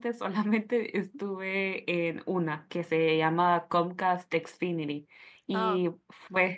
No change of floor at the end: Yes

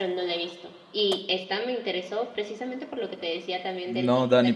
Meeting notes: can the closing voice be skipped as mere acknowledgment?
No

